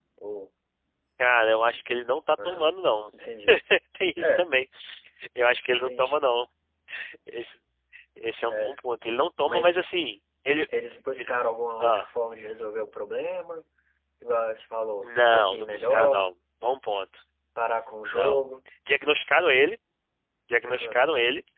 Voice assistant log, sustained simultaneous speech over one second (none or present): present